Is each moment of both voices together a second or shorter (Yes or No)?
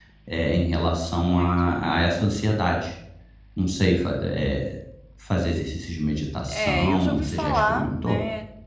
No